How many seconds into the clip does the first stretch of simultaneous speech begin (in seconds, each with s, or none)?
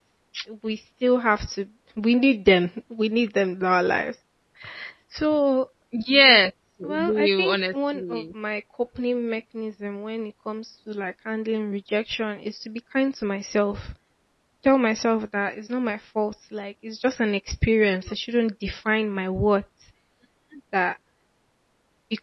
6.8 s